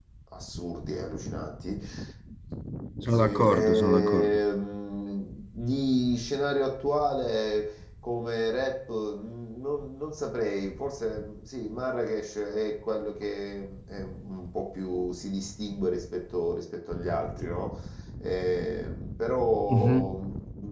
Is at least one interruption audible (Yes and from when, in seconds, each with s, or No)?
Yes, from 3.1 s